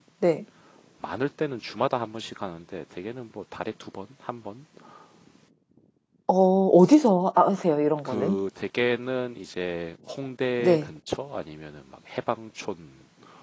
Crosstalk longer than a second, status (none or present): none